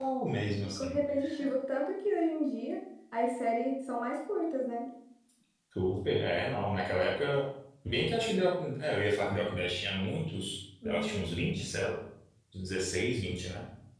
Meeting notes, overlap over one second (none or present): none